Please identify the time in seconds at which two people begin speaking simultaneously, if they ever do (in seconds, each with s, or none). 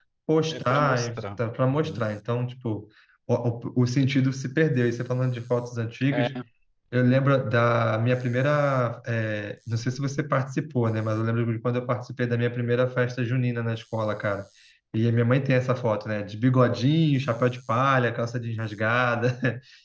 0.5 s